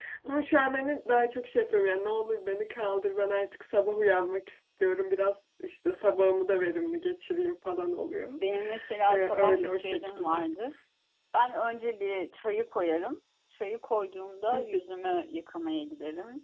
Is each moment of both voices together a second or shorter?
No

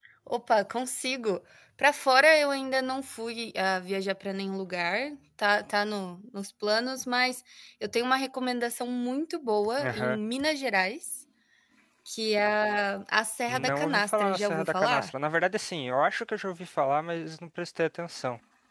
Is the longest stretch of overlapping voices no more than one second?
No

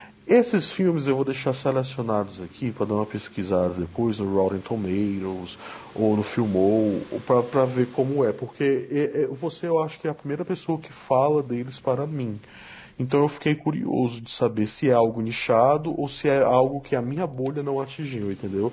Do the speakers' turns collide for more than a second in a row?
No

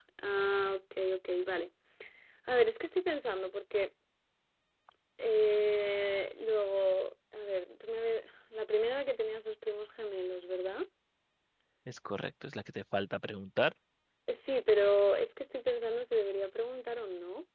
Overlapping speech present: No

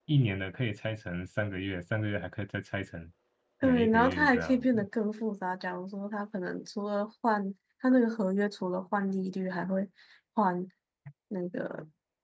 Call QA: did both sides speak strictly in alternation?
No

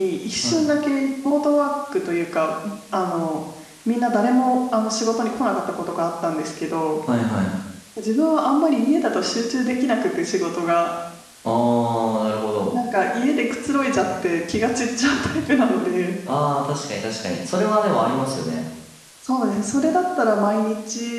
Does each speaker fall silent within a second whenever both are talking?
Yes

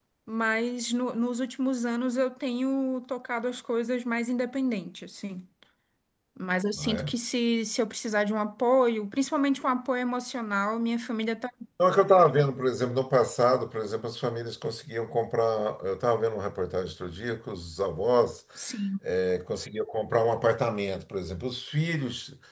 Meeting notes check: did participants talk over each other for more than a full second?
No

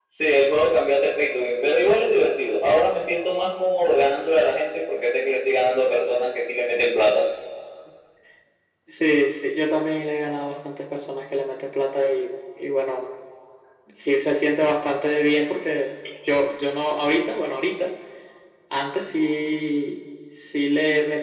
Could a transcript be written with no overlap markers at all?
Yes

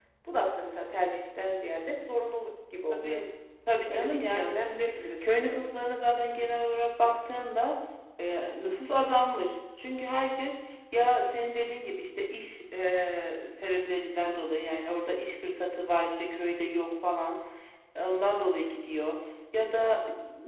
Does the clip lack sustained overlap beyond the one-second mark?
No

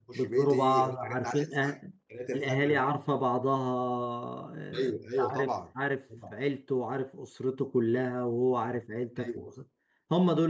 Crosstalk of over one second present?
Yes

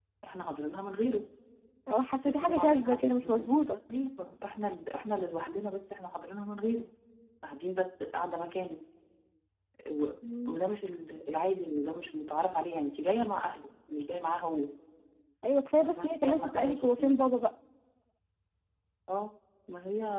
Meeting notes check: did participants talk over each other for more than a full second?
Yes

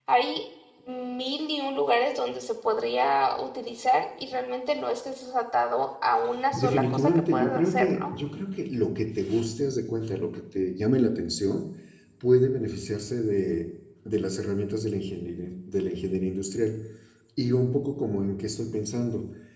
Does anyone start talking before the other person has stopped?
Yes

